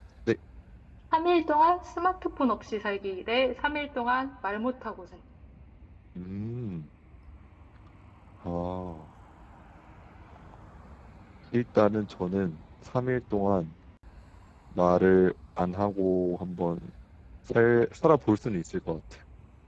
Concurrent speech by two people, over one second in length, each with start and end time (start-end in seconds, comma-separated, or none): none